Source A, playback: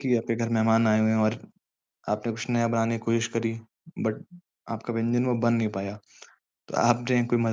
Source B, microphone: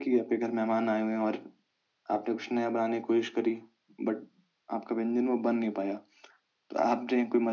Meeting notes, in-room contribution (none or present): none